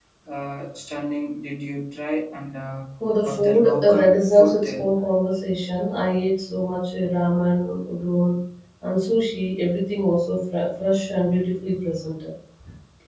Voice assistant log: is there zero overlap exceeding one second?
No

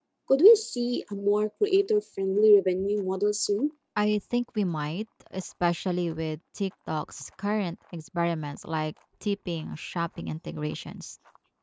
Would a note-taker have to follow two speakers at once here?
No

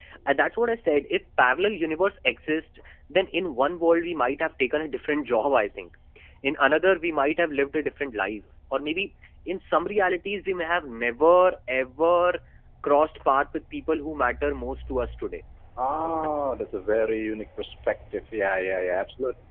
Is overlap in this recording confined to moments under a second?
Yes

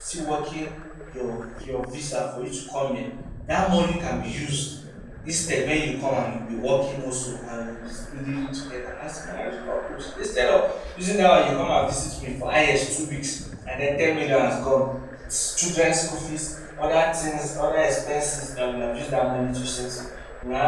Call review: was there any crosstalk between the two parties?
No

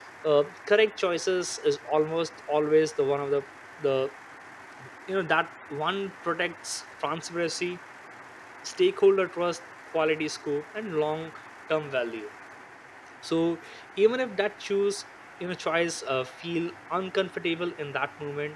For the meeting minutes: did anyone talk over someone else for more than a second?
No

